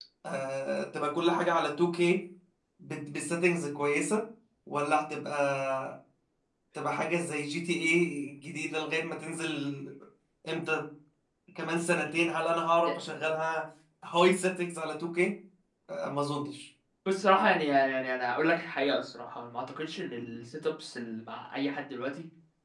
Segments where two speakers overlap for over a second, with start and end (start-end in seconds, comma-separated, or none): none